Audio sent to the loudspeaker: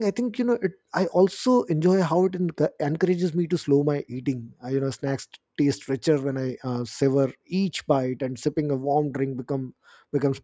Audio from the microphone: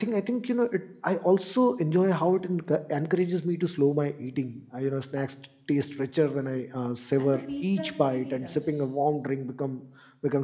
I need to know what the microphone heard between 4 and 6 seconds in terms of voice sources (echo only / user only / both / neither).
echo only